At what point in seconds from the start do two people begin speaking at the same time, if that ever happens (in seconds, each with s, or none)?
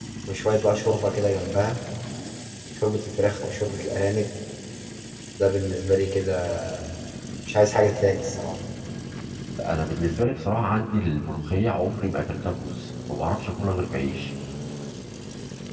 none